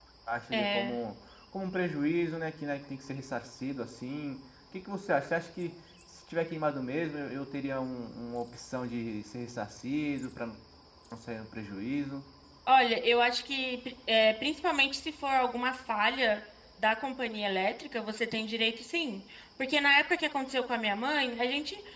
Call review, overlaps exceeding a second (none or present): none